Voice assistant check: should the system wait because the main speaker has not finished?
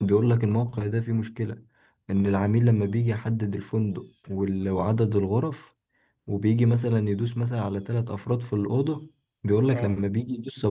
Yes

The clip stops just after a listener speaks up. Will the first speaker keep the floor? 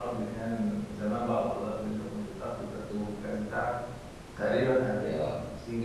Yes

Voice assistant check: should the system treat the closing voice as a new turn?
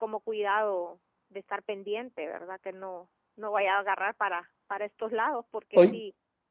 Yes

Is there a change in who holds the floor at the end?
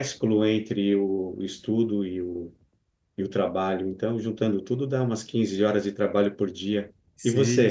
Yes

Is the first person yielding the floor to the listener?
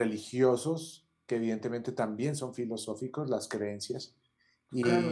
Yes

